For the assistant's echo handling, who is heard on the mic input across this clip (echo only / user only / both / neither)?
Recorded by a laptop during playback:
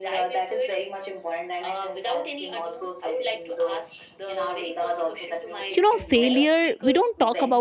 both